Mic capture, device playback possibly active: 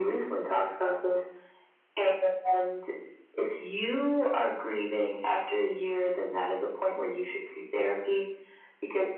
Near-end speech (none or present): none